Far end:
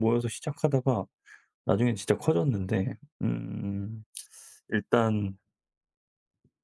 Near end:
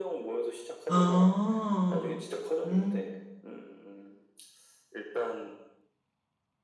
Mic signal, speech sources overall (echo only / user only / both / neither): both